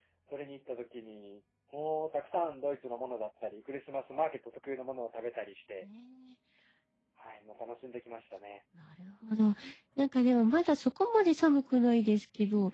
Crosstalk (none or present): none